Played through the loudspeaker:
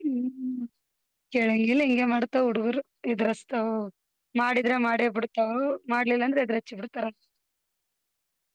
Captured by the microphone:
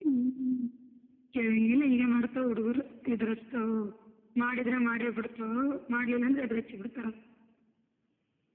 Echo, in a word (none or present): present